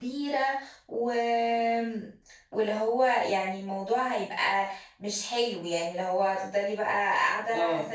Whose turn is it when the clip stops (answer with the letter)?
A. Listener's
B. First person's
A